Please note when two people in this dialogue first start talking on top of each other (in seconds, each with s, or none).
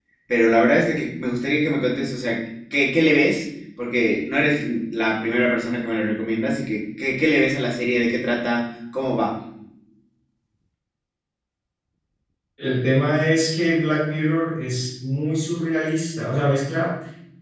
none